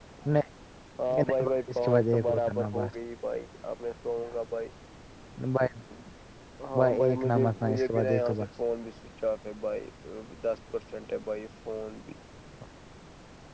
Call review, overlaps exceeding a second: present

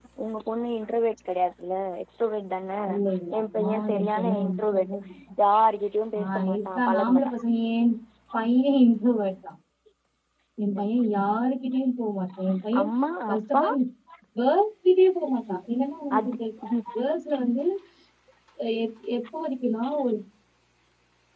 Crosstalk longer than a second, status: present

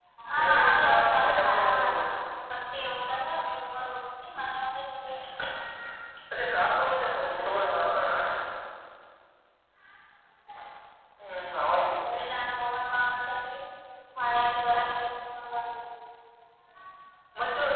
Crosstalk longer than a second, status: present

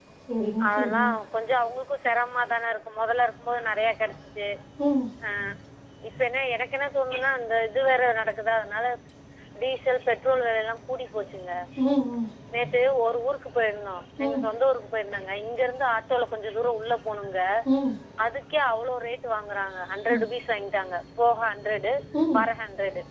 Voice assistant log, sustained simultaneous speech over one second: none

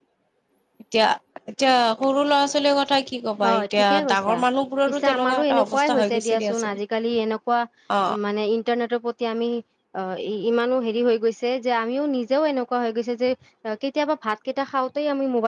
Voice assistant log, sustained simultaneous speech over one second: present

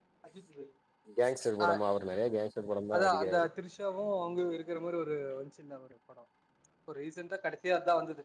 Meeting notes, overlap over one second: none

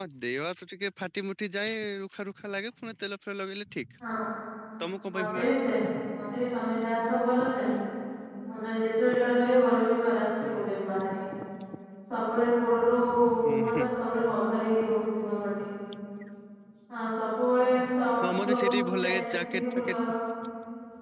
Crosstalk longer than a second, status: present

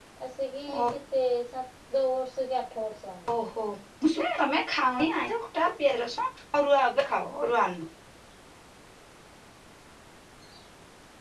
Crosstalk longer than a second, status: none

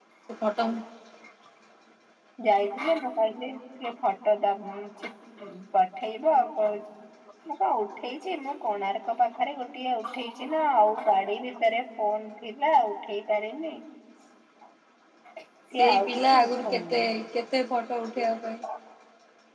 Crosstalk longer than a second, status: present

